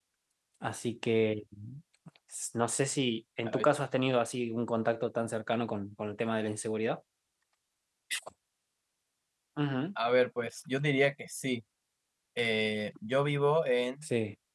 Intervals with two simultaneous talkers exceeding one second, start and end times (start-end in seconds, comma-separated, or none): none